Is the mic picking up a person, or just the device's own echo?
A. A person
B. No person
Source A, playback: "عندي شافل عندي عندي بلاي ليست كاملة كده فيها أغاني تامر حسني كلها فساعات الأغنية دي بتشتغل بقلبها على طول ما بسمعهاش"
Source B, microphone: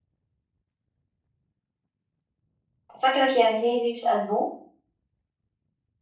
A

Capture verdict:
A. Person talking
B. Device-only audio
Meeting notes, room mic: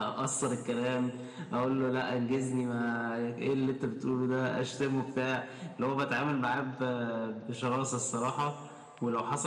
B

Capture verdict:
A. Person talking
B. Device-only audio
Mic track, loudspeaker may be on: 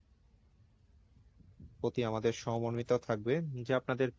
A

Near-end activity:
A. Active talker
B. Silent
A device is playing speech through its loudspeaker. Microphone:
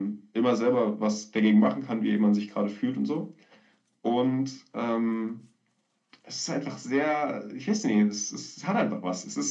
B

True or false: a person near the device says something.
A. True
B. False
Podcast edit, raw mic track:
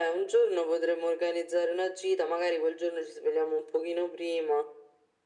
B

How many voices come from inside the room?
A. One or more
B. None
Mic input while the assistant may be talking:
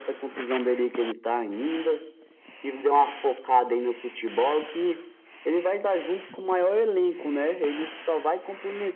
B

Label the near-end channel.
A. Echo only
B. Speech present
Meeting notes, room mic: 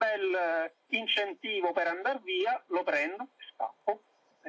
A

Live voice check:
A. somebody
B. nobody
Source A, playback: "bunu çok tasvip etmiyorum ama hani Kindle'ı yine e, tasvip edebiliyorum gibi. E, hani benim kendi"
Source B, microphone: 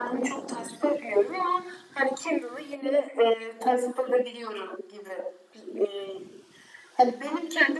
B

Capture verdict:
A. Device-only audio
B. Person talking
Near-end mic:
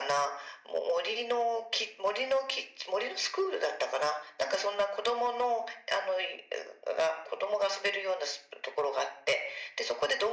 A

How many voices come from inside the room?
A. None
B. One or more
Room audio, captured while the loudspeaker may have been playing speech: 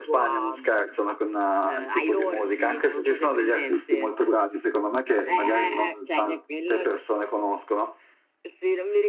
A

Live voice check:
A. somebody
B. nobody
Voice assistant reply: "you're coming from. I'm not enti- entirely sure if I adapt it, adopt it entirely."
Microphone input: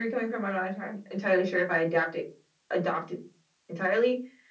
B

